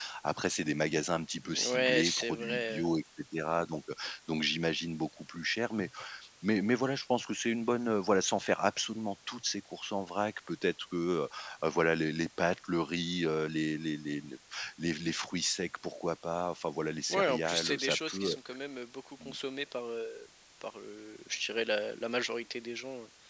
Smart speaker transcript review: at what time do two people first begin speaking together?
1 s

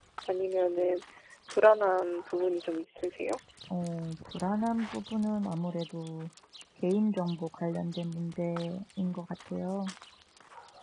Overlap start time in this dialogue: none

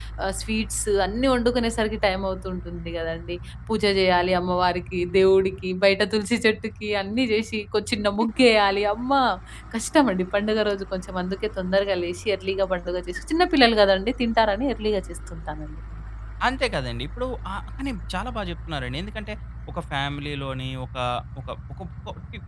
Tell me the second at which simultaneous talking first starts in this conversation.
none

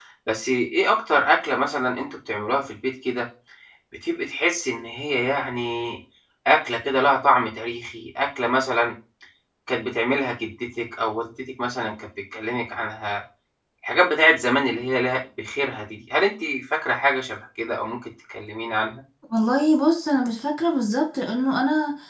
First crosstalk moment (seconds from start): none

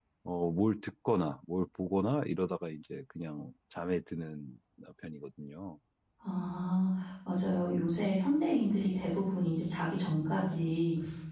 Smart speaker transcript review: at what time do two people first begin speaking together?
none

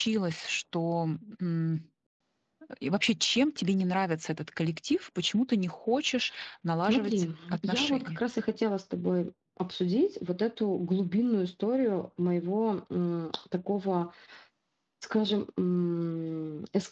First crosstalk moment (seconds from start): 7 s

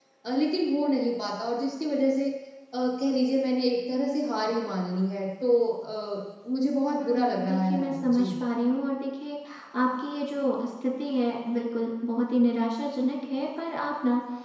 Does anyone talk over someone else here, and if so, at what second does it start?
7 s

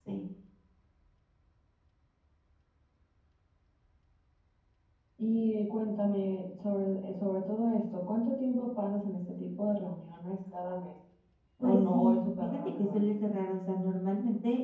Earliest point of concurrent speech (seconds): 12 s

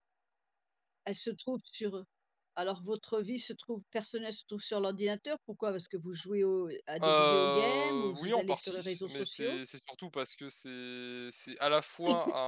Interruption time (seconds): 7 s

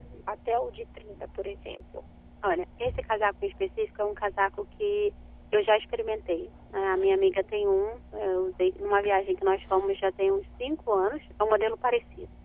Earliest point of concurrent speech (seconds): none

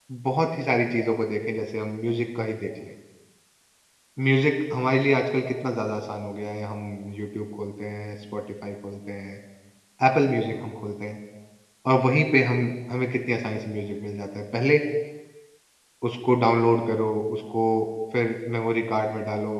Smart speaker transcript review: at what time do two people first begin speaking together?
none

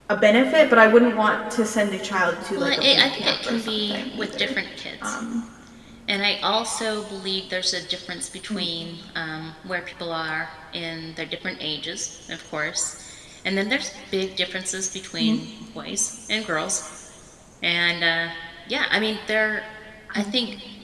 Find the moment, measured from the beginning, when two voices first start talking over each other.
3 s

